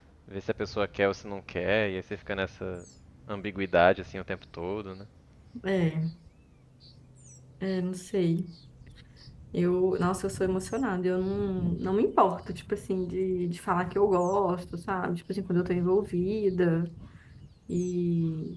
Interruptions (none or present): none